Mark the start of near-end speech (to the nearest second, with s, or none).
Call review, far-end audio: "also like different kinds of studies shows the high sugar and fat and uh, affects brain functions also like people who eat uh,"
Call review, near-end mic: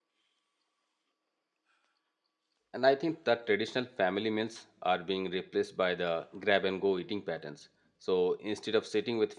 3 s